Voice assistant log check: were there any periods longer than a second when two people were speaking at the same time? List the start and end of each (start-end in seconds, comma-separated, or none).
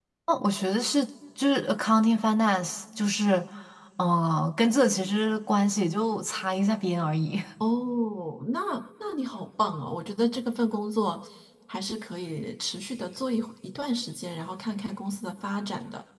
none